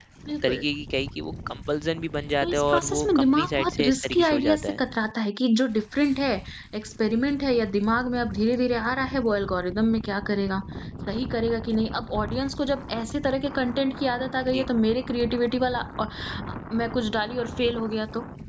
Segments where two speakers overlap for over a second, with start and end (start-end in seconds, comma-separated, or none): 2.4-4.8